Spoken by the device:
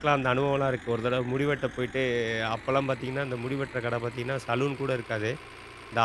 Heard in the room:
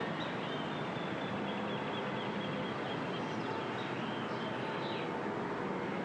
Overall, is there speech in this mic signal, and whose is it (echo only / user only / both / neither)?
neither